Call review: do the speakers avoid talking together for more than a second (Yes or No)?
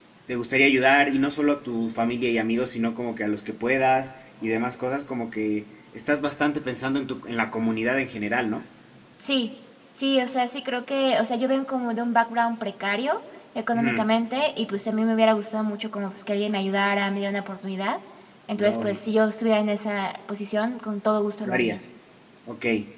Yes